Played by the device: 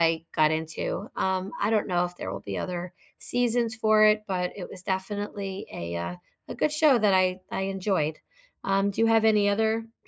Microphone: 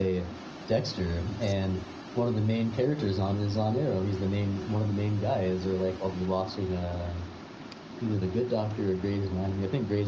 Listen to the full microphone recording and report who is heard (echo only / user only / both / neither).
user only